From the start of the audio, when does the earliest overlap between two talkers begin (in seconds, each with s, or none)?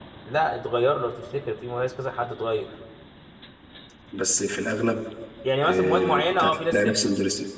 5.7 s